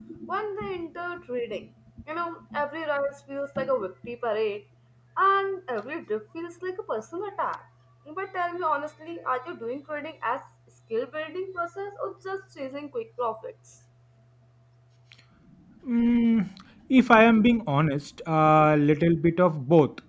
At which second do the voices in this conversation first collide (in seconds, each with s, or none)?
none